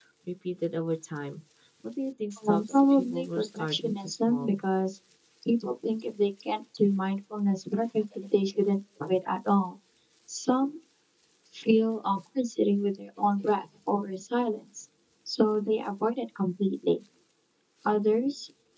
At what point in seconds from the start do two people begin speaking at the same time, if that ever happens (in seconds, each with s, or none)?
2.5 s